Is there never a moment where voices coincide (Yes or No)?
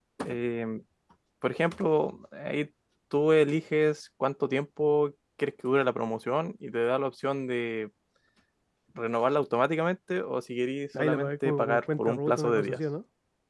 No